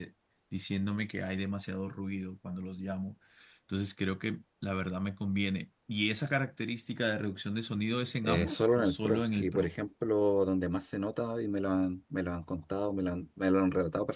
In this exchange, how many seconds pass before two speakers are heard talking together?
8 s

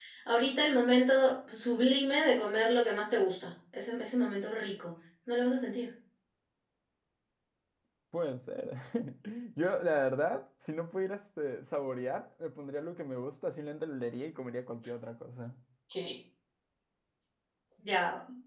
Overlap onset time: none

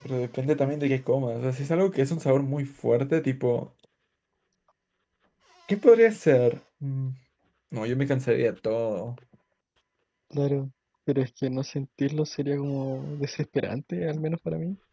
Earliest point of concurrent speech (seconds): none

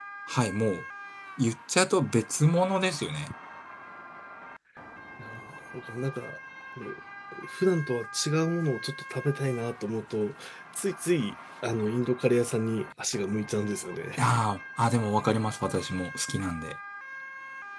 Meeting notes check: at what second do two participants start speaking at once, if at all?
none

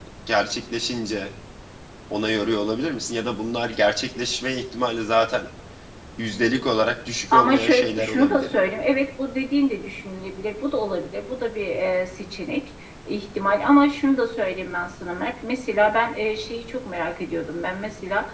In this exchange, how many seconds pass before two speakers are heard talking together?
7 s

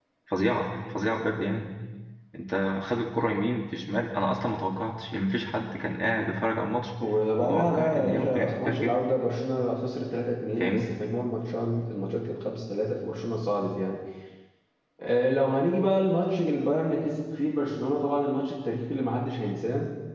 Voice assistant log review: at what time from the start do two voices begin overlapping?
7 s

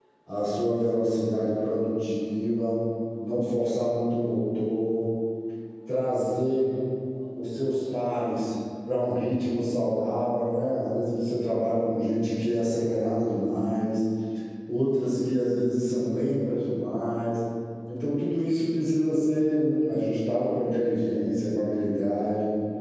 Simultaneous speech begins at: none

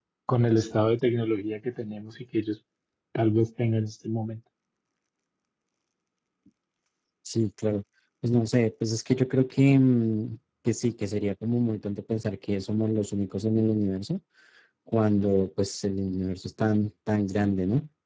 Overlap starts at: none

